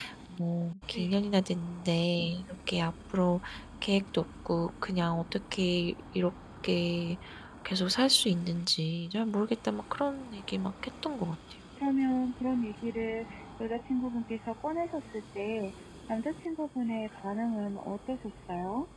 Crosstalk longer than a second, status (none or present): none